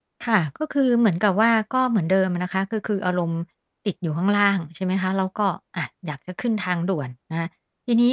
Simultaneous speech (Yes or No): No